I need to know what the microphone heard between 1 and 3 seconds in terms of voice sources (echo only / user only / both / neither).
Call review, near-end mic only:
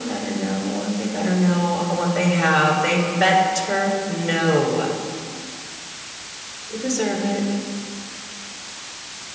echo only